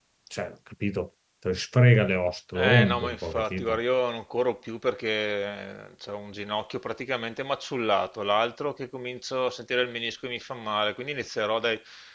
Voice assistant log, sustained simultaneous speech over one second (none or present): present